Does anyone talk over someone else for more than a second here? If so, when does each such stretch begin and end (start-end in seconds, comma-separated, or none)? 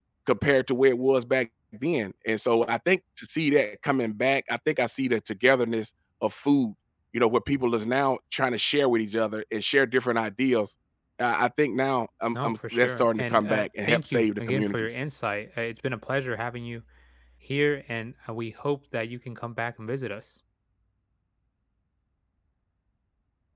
12.3-14.9